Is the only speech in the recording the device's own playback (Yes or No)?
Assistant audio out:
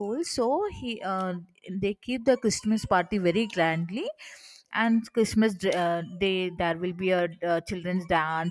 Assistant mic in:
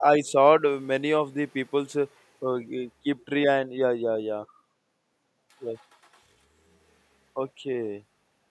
No